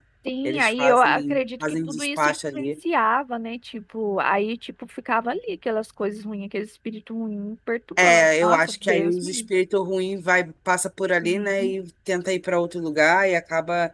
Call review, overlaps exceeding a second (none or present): present